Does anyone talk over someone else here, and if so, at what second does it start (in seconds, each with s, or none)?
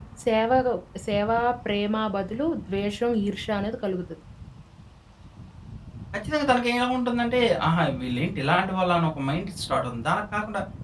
none